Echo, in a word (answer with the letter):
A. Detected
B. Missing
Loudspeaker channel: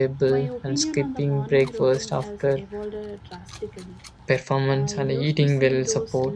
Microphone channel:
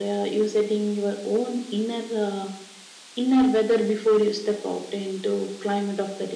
B